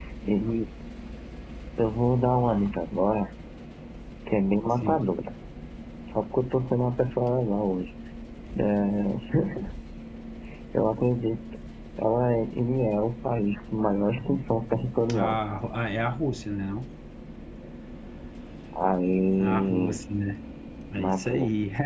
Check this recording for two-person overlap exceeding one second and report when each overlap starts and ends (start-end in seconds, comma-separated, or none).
none